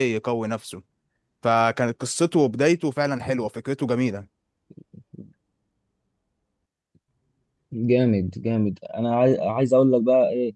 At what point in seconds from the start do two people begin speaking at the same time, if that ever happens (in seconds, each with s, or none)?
none